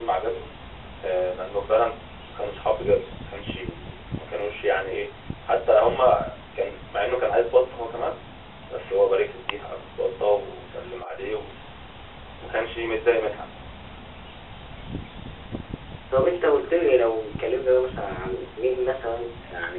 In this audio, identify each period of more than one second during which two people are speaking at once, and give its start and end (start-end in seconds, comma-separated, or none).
none